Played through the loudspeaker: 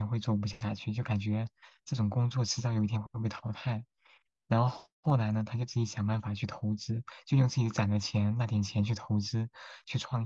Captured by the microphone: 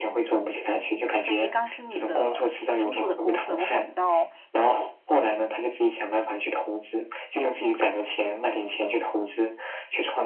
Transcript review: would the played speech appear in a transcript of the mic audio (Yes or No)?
Yes